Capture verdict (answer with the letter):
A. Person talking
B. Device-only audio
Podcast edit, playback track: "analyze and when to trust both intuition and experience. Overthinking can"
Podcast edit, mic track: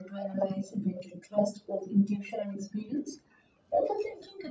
B